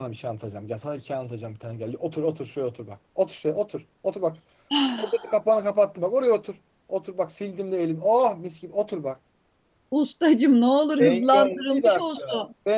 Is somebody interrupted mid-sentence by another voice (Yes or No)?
Yes